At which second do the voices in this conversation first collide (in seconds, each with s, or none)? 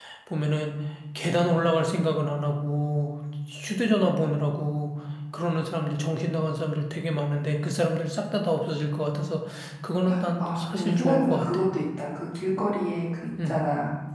10.4 s